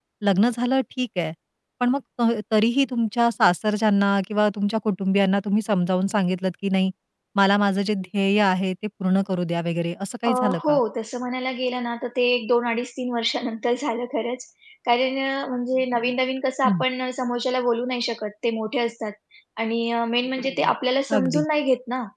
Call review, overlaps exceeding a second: none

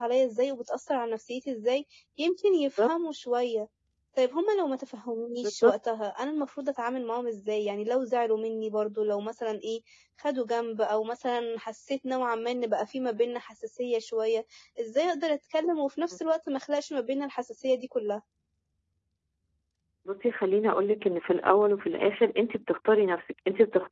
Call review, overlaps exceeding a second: none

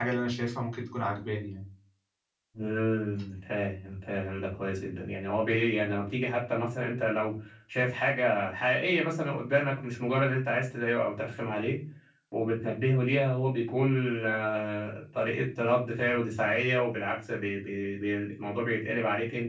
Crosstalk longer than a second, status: none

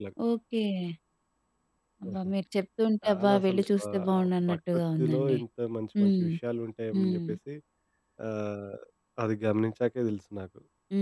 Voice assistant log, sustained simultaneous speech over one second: present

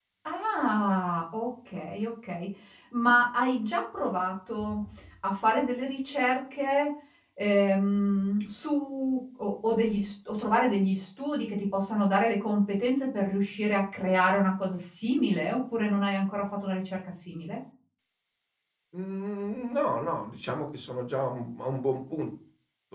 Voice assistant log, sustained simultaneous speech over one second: none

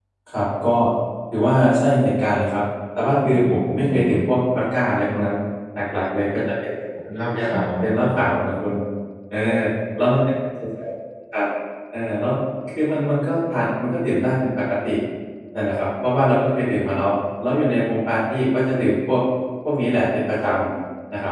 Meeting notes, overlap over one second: present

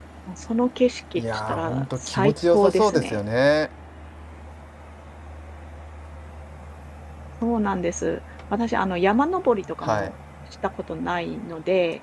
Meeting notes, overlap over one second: present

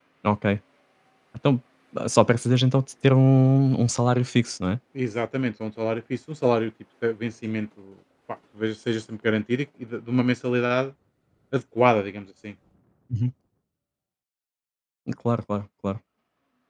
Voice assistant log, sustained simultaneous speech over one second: none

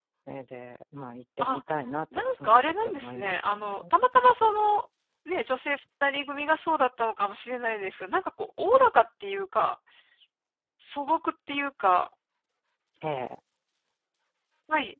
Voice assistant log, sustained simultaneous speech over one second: present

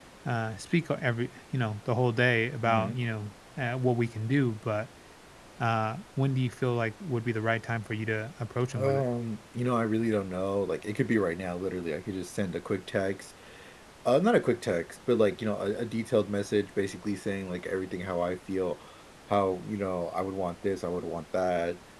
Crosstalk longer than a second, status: none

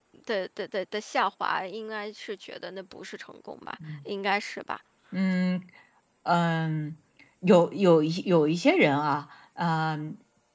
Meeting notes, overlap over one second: none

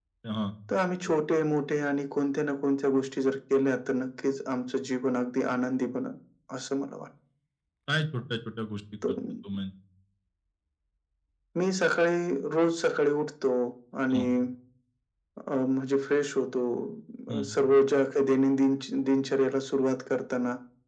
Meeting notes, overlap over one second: none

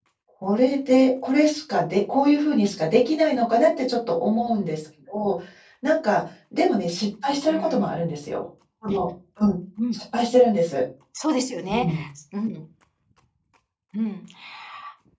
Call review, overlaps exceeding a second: none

